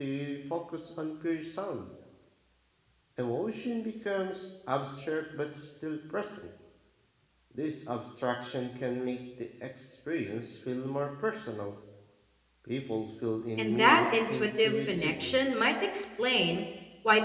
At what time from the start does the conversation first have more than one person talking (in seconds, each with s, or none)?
13.6 s